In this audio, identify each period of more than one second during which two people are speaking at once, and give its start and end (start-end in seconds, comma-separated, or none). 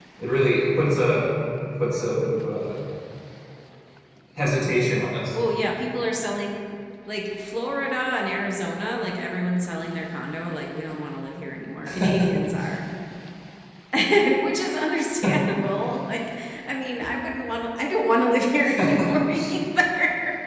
none